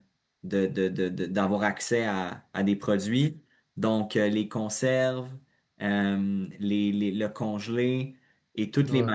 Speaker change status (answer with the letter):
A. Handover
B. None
B